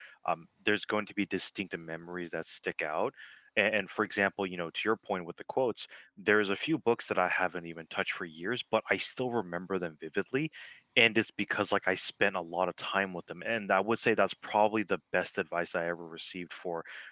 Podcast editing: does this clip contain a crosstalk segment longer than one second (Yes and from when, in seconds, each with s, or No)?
No